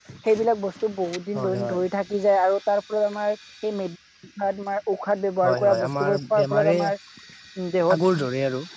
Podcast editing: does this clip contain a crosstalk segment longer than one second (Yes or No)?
Yes